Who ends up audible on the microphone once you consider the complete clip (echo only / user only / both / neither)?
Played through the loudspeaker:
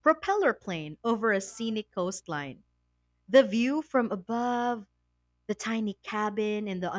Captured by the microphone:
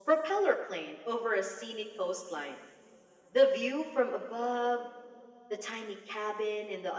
echo only